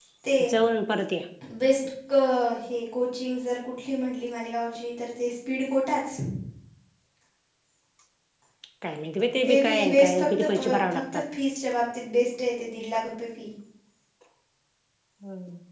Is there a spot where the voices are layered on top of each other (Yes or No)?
Yes